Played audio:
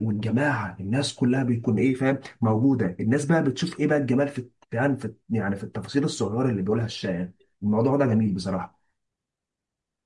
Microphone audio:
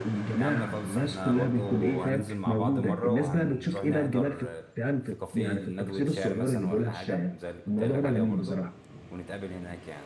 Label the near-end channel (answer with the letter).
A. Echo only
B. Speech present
B